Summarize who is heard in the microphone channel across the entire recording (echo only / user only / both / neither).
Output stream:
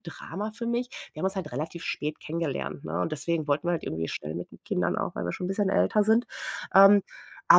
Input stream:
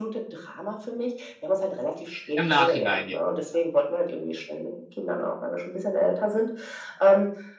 both